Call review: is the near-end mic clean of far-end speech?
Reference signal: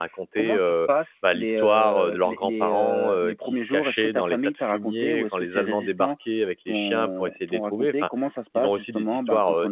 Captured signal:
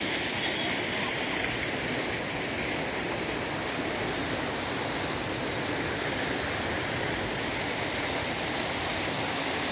Yes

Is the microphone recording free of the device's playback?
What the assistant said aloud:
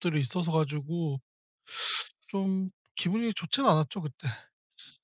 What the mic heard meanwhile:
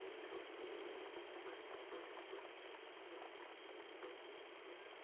Yes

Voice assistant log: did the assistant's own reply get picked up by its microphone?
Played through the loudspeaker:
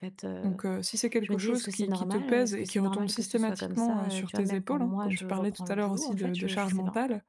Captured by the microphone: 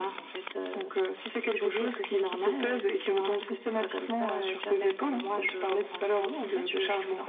Yes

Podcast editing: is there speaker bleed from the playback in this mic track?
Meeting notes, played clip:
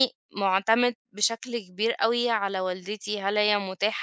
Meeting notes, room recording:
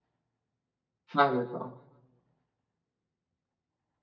No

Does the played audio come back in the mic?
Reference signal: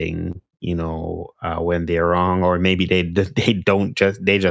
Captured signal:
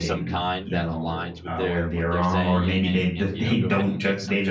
Yes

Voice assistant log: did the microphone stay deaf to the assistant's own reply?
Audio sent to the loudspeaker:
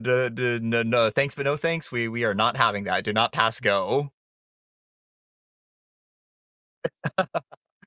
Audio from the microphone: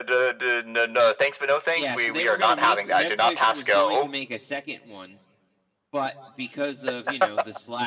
No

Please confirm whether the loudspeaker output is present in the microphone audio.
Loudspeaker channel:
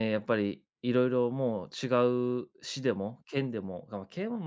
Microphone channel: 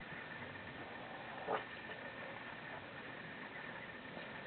No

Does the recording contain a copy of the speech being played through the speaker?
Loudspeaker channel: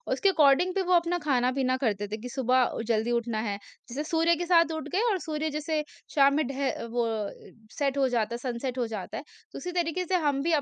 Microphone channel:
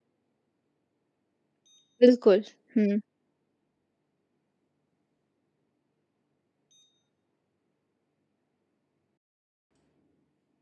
No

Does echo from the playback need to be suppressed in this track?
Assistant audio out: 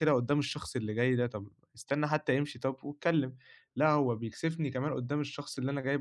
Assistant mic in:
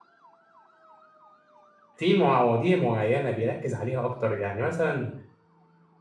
No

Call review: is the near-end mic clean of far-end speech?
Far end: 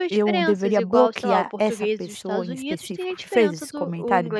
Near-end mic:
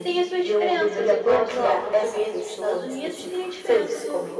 No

